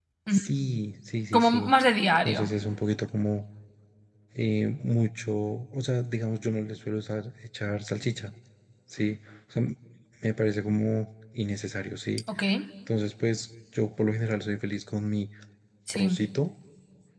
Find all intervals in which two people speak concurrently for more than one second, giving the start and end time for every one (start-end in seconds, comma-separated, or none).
none